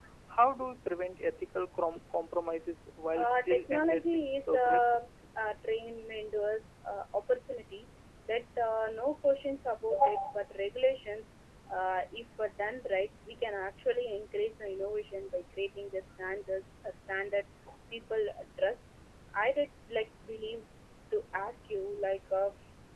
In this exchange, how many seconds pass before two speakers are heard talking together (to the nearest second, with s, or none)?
3 s